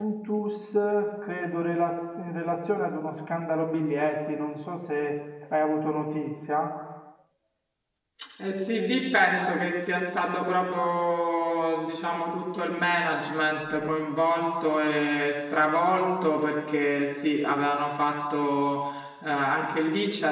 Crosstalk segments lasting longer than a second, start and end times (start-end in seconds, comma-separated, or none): none